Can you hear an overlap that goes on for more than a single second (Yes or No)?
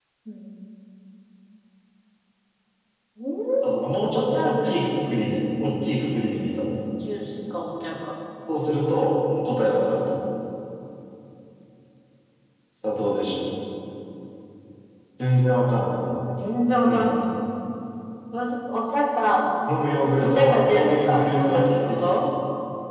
Yes